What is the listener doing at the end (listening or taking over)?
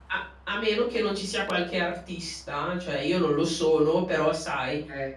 listening